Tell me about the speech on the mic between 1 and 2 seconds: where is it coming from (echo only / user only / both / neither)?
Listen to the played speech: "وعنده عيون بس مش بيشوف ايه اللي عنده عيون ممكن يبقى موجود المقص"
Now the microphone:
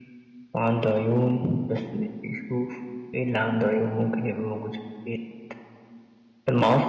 echo only